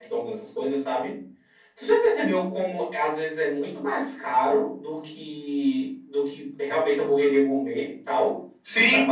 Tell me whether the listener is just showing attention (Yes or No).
No